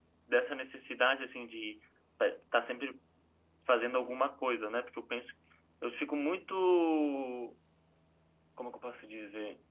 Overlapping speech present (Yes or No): No